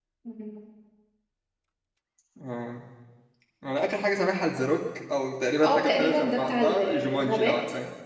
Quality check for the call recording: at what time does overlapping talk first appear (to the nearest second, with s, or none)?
6 s